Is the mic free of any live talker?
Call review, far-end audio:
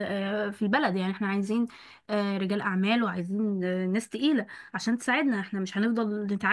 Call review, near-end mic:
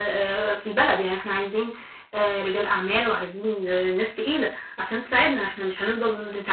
Yes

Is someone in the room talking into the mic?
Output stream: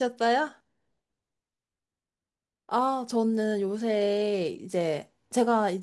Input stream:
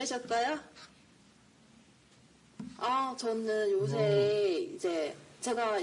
Yes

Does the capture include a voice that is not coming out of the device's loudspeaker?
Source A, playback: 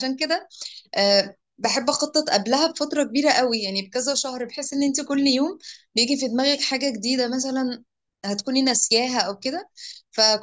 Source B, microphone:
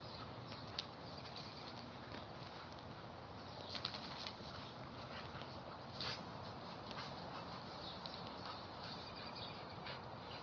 No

